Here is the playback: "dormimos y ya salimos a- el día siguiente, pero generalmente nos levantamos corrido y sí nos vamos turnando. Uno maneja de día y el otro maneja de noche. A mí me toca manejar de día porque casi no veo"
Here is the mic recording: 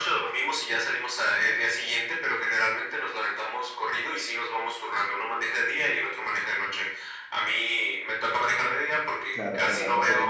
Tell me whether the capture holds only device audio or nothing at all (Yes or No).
No